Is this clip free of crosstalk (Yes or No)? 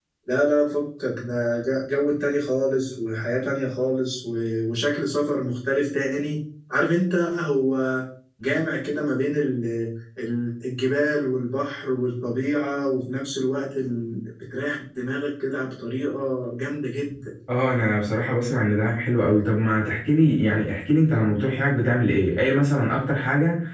Yes